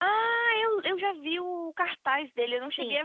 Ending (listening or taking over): taking over